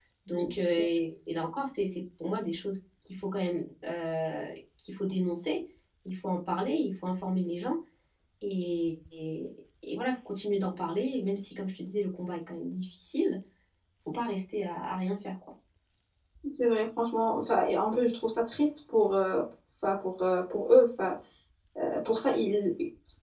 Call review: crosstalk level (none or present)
none